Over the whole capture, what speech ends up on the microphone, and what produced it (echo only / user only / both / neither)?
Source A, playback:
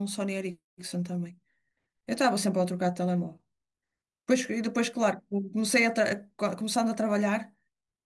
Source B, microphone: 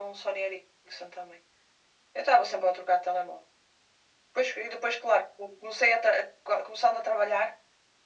echo only